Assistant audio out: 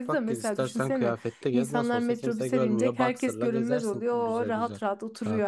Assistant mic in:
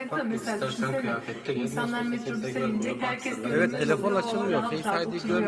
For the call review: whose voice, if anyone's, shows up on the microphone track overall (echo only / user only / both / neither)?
both